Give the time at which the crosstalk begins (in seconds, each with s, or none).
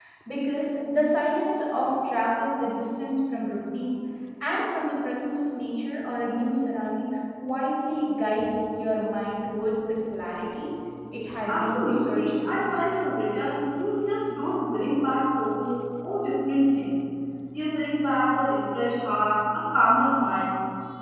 11.5 s